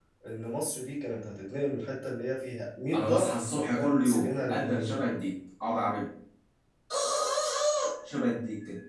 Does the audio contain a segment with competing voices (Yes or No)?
Yes